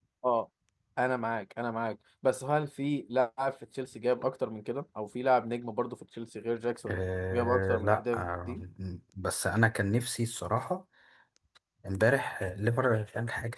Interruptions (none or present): present